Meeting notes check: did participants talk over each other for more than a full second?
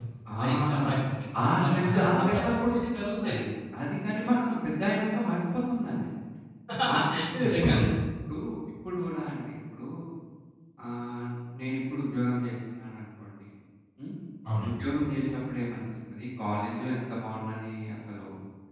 Yes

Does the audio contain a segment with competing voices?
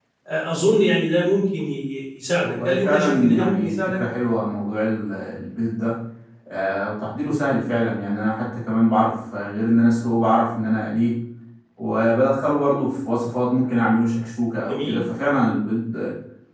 Yes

